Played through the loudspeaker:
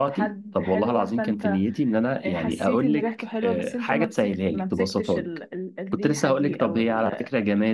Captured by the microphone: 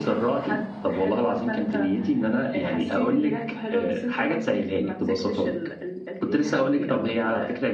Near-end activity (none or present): none